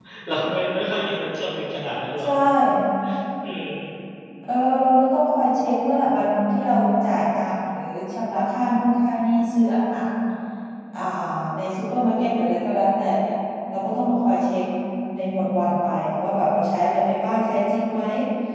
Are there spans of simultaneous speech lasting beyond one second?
No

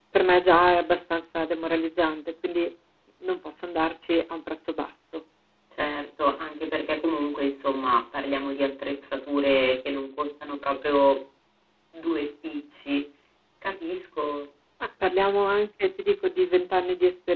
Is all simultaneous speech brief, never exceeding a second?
Yes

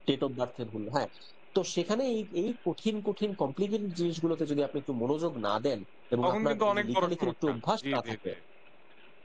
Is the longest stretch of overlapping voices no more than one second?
No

